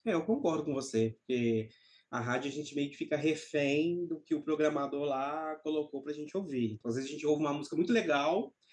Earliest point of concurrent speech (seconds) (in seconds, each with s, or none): none